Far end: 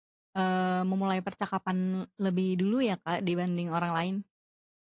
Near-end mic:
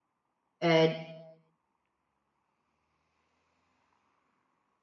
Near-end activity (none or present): present